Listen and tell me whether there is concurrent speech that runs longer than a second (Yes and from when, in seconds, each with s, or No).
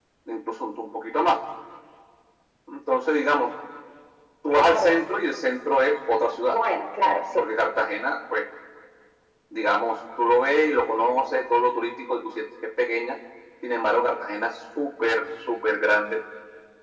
No